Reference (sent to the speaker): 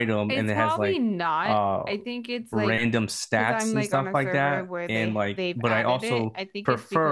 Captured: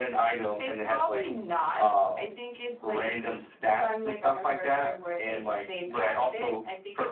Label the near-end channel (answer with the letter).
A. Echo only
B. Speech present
A